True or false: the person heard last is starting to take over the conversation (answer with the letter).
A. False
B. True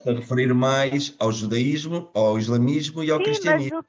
B